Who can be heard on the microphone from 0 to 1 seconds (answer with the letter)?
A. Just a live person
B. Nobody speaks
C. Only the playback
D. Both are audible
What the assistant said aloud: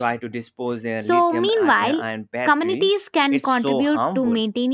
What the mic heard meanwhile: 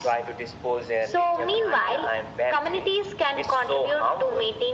C